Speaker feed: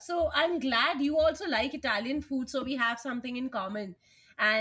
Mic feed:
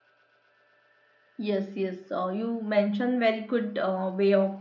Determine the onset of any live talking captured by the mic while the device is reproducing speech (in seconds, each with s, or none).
1.4 s